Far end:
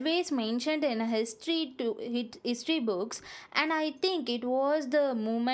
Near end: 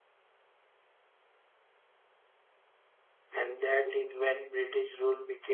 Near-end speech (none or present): present